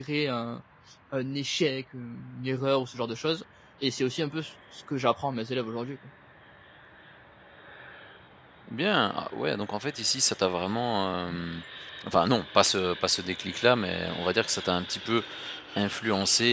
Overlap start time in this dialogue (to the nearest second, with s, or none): none